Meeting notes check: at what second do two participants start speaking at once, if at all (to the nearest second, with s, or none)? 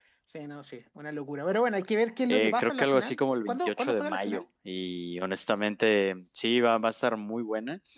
2 s